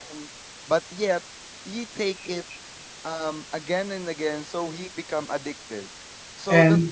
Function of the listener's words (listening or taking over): taking over